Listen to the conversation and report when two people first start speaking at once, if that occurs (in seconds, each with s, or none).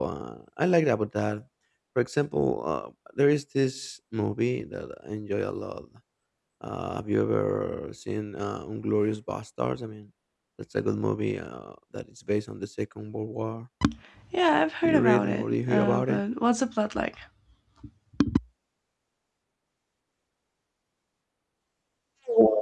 14.8 s